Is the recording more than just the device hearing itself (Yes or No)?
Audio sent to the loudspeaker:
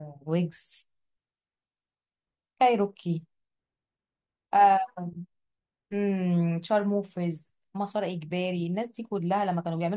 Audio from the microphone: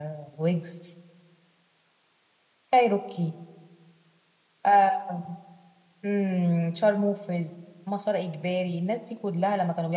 No